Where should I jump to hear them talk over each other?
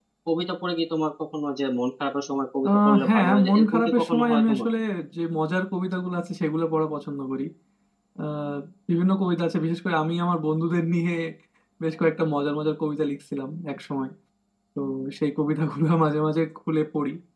3 s

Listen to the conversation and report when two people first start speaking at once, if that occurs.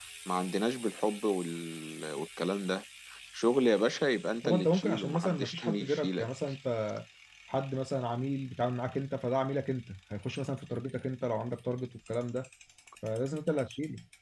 4 s

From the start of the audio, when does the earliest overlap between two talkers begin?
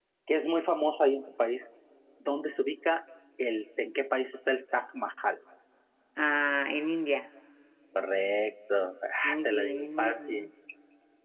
9 s

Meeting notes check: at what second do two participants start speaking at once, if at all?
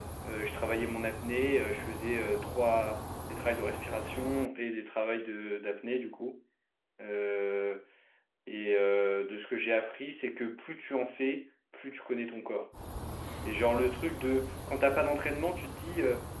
none

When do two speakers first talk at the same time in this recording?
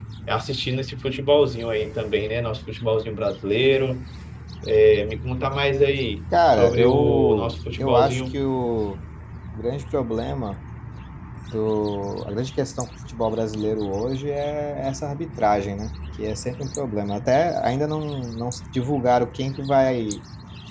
7 s

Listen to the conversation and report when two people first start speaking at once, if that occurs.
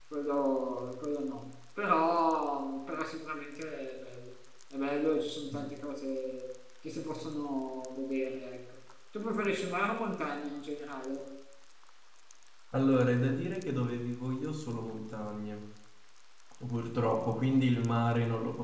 none

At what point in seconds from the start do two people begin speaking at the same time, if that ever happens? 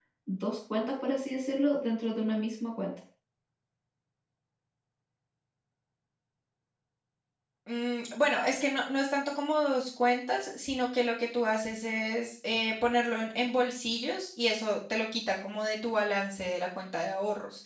none

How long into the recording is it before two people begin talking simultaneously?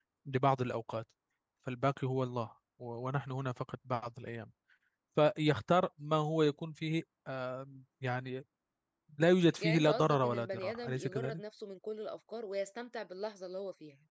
10 s

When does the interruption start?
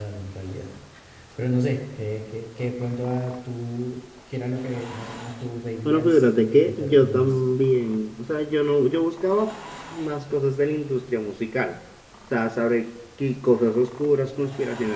6 s

